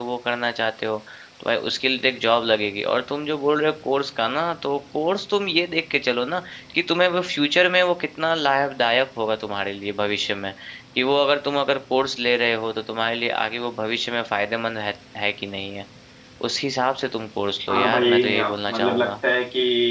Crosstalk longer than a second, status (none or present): present